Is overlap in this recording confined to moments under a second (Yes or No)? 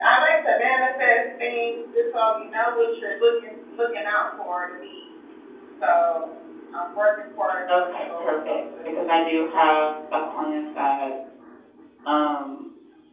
No